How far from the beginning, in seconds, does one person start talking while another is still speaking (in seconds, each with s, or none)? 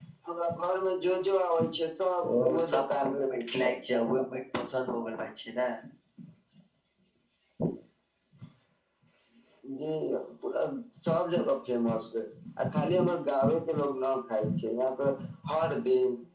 2.4 s